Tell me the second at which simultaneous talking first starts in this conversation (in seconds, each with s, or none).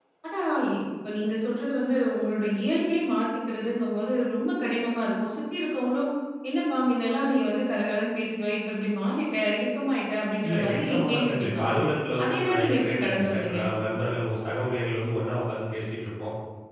10.4 s